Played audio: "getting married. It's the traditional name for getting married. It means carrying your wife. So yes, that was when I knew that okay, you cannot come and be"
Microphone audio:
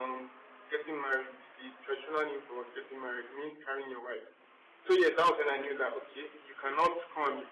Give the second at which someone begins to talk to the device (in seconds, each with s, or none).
none